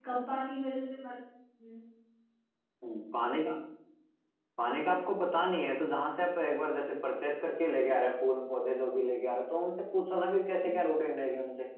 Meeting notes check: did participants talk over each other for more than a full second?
No

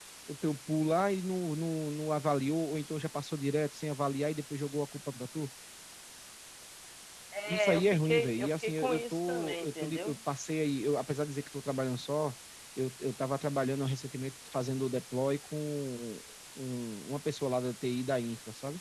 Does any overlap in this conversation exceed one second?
Yes, from 7.5 s

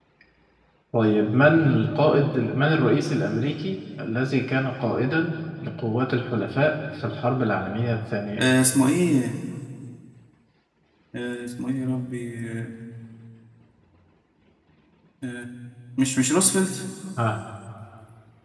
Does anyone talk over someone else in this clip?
No

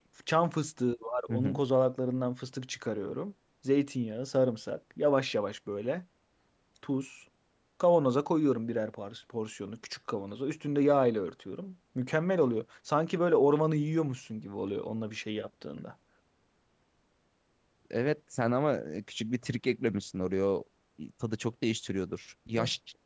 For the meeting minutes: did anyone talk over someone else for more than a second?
No

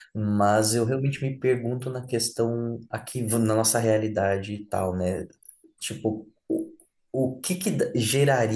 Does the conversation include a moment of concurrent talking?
No

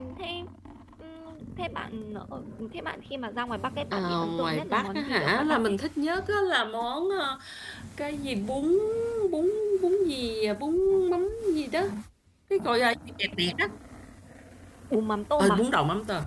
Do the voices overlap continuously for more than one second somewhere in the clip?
Yes, from 3.9 s

